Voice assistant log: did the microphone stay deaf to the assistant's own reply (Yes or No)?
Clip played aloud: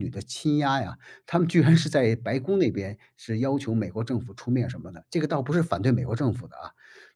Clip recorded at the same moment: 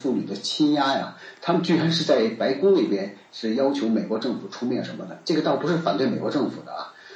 No